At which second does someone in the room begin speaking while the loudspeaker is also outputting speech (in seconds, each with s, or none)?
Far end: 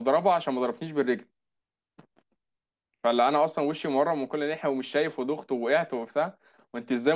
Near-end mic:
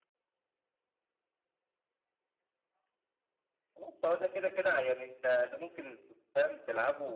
3.8 s